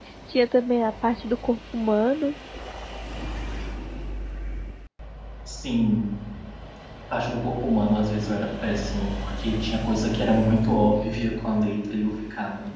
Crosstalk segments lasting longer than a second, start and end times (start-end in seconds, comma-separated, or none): none